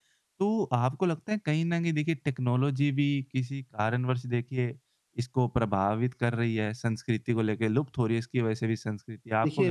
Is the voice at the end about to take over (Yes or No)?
Yes